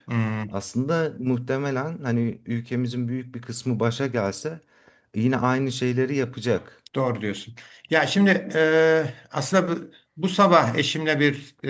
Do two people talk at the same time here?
No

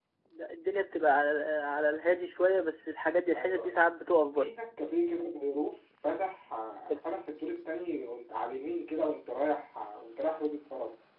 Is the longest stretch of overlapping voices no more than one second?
Yes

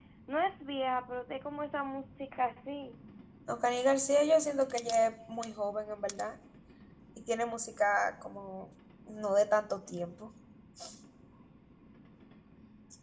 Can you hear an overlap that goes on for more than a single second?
No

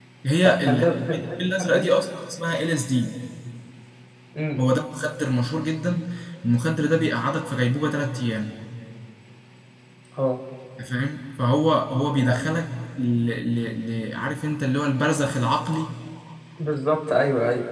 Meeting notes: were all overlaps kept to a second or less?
No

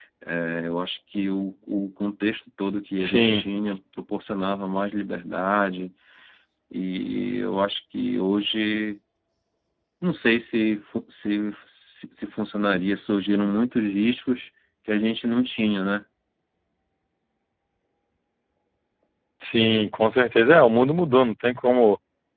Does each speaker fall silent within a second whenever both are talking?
Yes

